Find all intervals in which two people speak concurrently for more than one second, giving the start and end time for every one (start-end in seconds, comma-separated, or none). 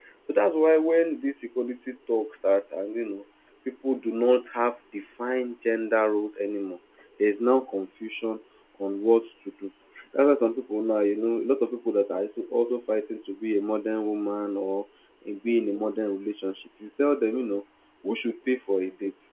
none